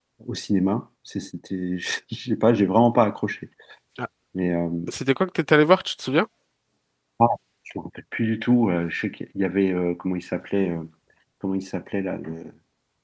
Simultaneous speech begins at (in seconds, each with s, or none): none